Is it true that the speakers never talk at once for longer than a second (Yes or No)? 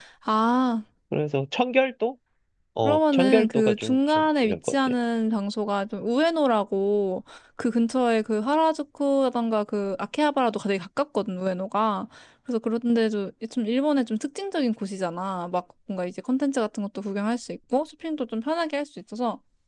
No